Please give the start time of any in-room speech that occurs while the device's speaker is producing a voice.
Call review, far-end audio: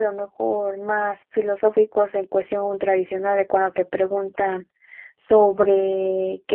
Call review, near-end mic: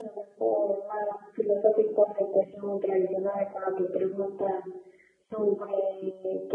none

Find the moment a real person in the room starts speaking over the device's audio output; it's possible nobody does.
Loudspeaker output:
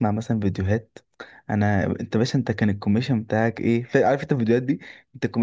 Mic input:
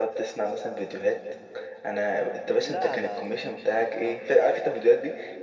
2.5 s

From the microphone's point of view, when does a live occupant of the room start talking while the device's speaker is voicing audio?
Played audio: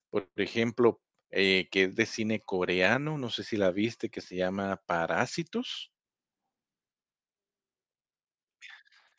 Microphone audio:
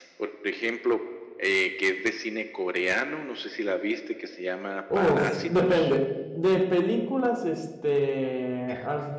4.9 s

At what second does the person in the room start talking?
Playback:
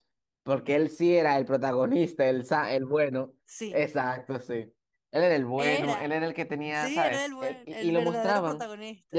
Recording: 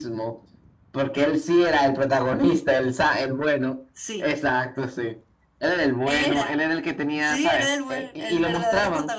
none

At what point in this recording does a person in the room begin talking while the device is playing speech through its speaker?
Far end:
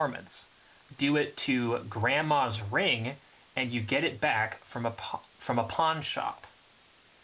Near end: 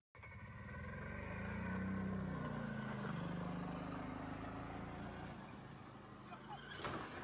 none

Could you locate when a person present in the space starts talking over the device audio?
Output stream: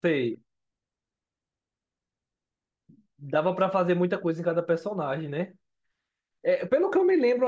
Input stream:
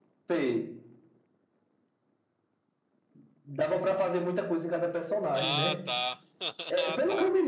5.3 s

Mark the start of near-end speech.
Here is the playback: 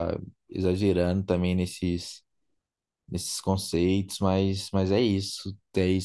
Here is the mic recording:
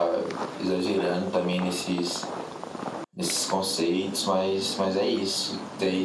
none

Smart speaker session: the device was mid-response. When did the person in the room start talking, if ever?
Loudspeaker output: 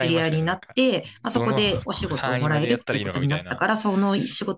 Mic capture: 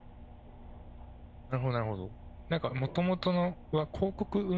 1.5 s

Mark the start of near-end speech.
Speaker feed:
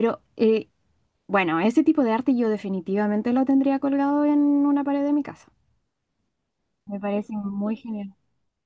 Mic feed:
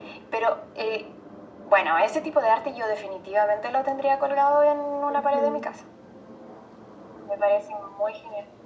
5.1 s

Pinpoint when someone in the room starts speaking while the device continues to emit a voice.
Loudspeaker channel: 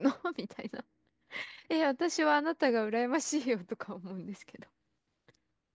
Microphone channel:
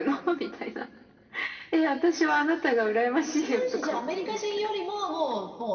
3.2 s

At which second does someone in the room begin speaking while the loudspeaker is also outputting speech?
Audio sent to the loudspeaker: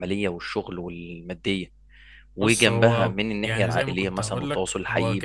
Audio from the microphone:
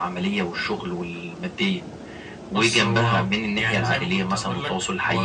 none

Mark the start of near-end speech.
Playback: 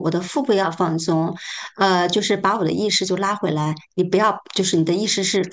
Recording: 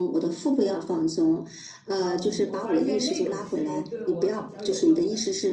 2.0 s

